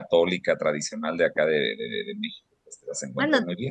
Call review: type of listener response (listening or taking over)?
taking over